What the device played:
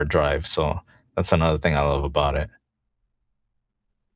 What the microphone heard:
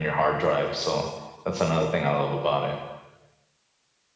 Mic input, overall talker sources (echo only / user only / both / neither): echo only